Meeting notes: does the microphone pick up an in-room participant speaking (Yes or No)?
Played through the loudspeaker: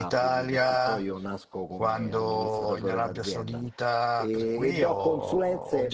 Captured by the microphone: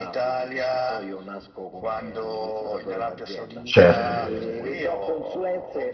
Yes